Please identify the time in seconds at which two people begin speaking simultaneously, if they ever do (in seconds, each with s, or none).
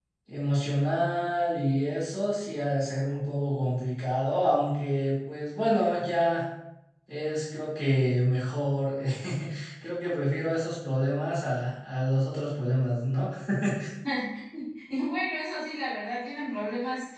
none